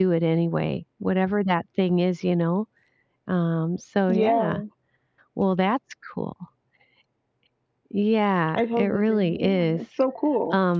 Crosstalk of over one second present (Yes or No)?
Yes